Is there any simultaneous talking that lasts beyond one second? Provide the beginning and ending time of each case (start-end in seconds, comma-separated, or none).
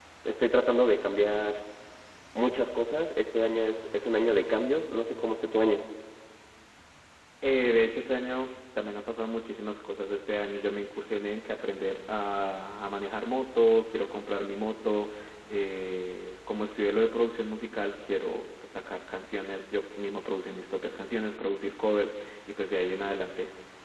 none